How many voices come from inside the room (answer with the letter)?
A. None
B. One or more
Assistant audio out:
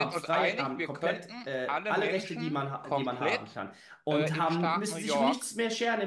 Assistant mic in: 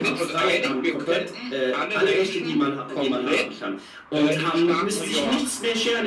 A